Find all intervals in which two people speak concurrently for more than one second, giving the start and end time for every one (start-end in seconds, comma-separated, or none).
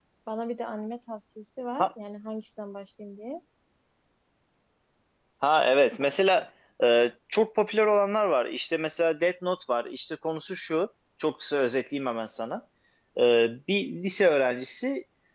none